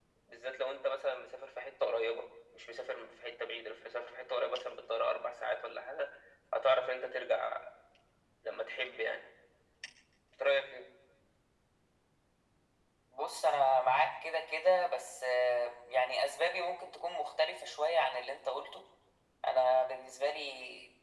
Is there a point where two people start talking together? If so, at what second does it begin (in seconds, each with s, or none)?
none